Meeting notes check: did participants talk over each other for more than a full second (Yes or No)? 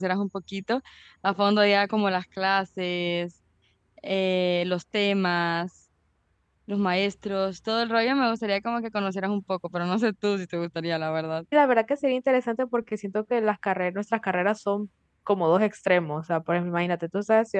No